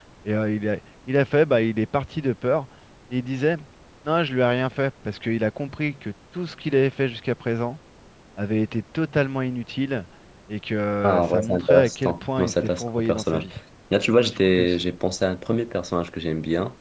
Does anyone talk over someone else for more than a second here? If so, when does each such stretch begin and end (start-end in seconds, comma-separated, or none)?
11.0-13.4